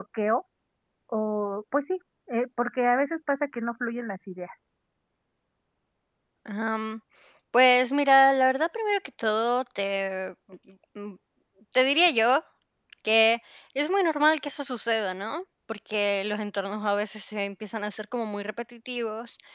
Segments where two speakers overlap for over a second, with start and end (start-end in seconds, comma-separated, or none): none